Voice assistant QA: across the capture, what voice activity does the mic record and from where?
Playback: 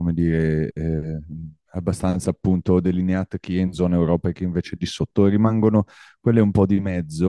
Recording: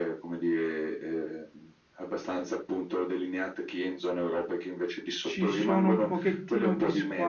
both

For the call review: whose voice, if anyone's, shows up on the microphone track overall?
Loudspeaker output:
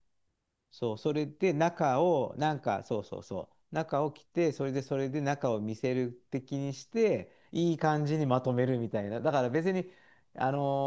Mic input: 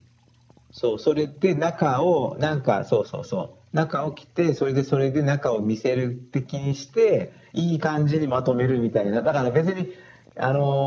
echo only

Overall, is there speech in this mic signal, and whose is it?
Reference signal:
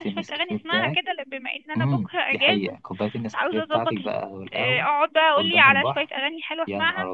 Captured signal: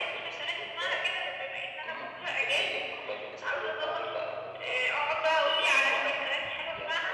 echo only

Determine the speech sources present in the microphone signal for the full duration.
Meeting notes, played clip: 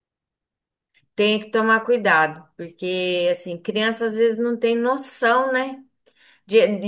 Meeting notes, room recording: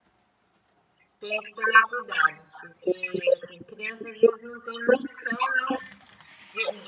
echo only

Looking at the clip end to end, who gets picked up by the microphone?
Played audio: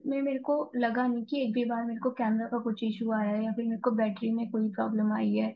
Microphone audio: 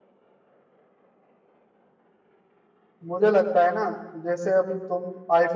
user only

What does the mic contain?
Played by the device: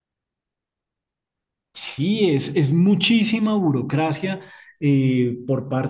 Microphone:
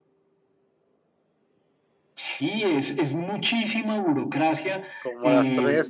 both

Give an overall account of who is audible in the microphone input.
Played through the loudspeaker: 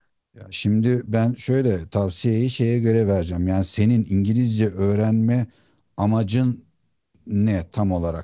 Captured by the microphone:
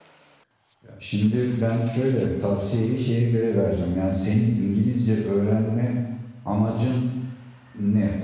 echo only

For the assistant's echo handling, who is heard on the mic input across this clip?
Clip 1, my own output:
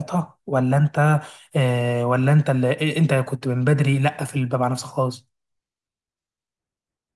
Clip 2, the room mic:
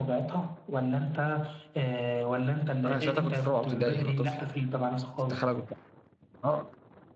both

